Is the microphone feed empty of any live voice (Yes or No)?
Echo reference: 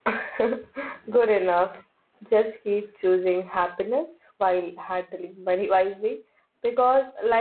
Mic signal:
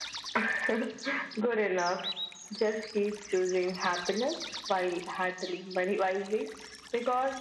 Yes